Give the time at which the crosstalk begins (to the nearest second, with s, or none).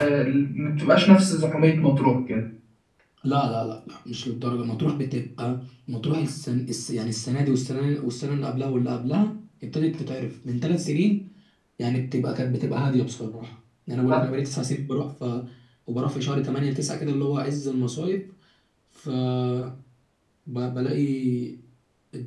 none